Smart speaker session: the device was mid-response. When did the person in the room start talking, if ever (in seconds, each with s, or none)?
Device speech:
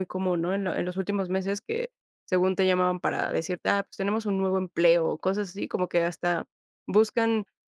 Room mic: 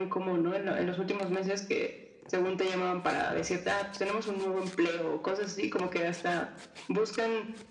none